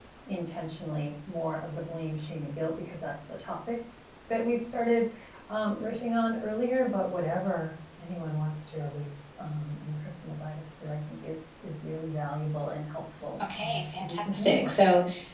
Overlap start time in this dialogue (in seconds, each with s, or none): 13.4 s